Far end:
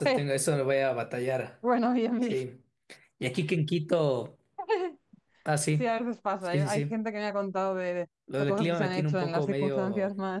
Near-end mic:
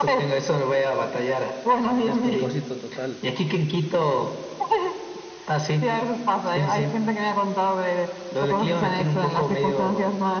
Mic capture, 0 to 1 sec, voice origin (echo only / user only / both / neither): echo only